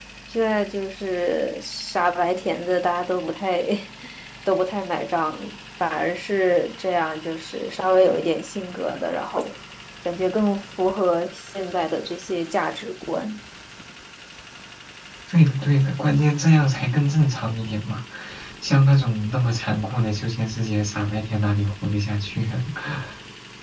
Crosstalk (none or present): none